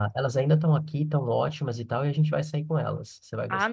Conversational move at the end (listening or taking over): taking over